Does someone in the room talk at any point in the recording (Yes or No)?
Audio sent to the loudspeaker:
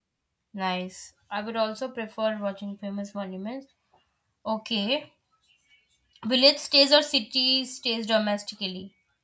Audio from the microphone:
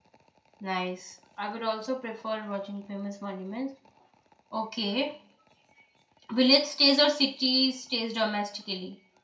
No